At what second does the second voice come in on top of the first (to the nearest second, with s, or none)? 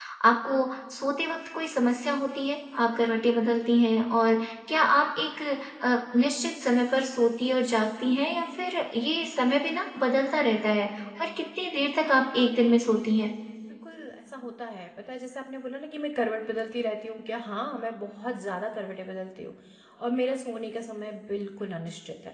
none